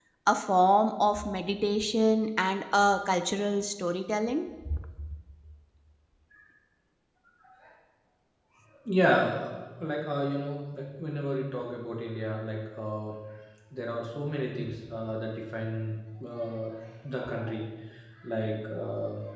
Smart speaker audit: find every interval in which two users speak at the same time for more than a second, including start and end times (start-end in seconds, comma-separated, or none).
none